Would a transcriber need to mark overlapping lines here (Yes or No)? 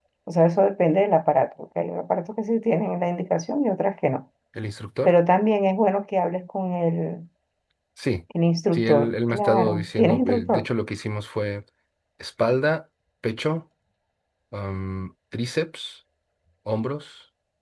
Yes